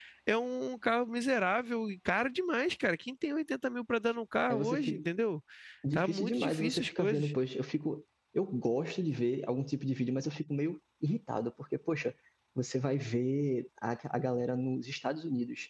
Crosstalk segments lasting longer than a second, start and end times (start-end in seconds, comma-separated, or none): 5.9-7.3